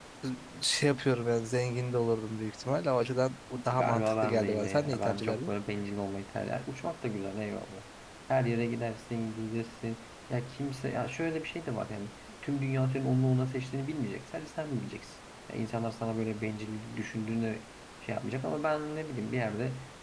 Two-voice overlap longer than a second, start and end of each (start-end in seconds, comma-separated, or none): 3.7-5.5